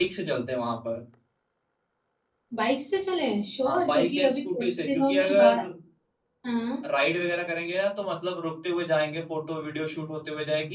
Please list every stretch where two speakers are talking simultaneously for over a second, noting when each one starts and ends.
3.6-5.5

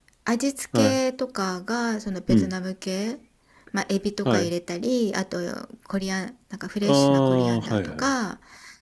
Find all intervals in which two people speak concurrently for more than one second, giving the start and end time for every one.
6.8-8.1

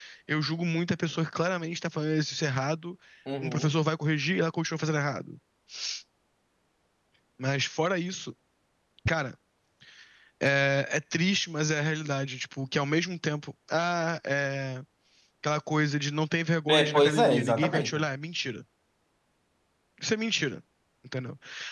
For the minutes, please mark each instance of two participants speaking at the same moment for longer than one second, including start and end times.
16.7-17.9

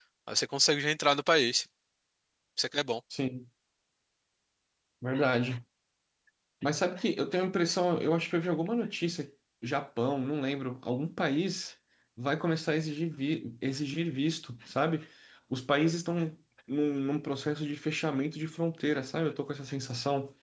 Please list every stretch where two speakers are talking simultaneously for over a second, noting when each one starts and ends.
none

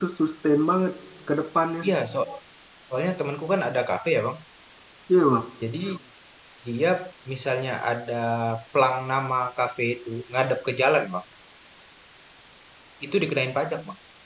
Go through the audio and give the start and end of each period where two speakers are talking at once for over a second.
none

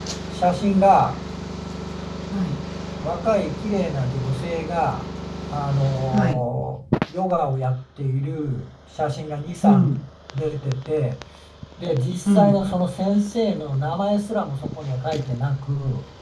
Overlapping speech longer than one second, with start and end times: none

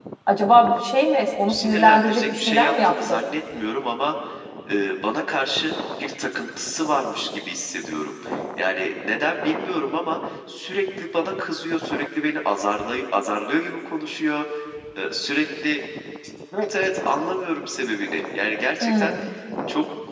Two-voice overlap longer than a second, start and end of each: 1.5-3.2

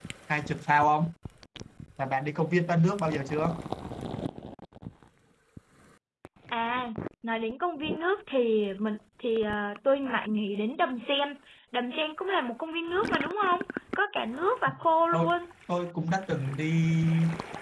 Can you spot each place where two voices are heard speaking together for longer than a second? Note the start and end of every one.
none

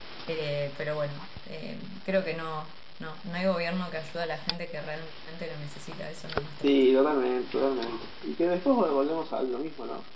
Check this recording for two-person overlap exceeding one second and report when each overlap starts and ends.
none

